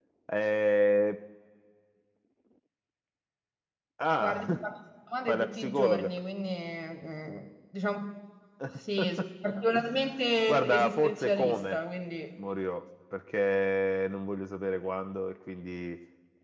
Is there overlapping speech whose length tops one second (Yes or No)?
Yes